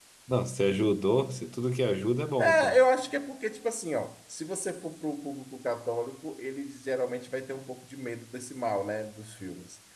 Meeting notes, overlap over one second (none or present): none